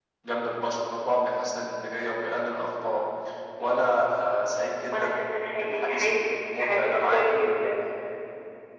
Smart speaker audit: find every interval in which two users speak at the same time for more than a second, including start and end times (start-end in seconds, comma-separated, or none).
4.9-7.7